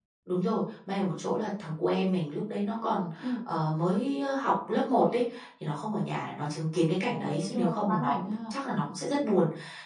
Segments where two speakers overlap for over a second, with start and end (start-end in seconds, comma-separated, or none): 7.0-8.6